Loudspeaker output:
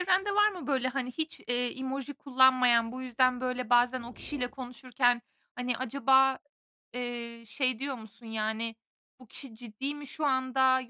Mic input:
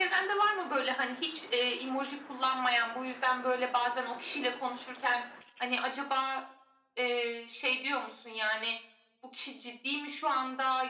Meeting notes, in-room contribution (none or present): none